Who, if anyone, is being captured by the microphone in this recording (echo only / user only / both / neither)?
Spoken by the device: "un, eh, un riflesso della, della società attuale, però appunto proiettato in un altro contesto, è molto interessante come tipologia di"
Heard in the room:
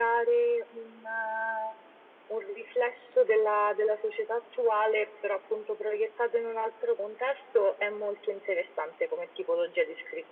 echo only